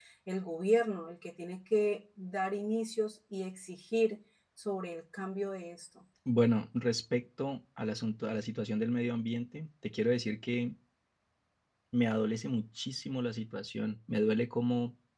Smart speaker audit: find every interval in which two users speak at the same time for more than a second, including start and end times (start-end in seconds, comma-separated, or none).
none